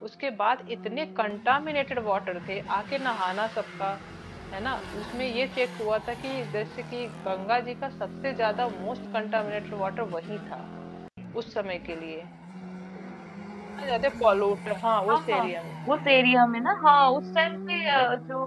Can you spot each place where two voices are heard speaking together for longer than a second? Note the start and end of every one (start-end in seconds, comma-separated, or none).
none